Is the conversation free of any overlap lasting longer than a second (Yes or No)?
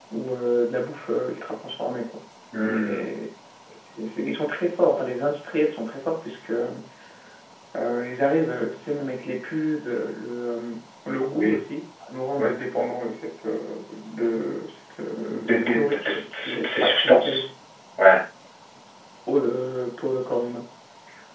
No